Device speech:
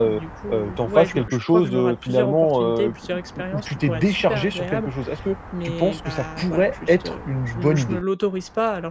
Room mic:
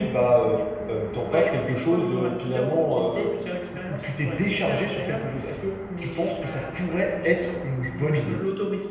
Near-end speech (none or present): none